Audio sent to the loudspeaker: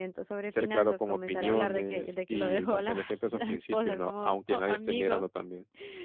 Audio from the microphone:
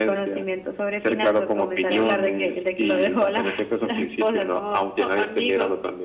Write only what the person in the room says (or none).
none